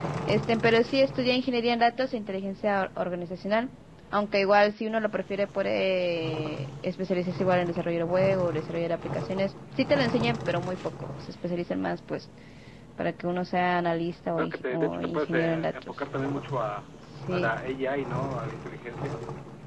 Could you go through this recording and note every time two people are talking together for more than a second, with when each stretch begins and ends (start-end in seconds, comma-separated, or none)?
14.4-15.9